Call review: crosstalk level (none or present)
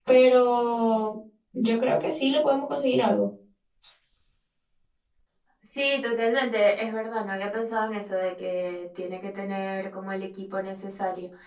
none